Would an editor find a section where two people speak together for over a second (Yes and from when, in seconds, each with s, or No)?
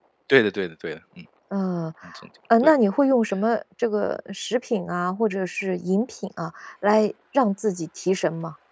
No